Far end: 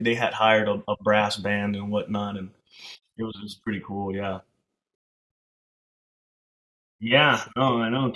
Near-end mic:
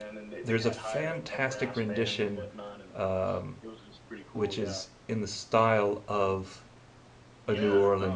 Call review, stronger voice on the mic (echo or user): user